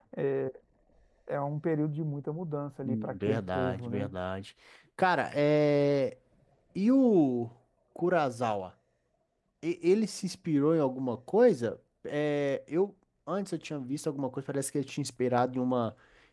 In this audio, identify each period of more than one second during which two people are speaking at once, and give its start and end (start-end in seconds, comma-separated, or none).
2.9-4.1